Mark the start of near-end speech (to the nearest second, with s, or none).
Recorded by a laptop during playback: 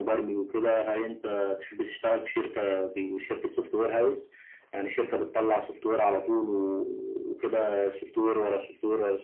none